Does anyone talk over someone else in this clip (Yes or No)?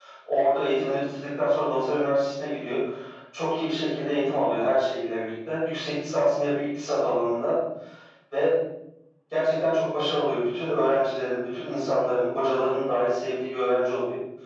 No